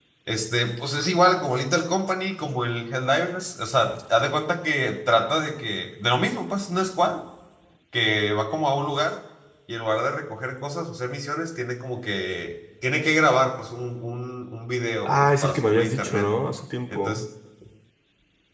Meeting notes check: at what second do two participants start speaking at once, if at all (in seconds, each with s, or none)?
15.0 s